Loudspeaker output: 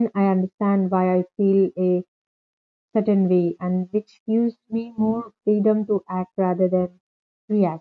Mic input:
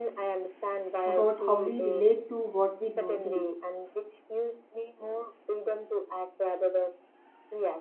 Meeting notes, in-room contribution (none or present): present